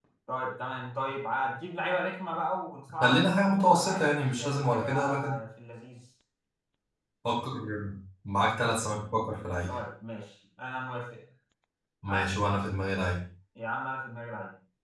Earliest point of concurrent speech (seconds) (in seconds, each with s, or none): 3.0 s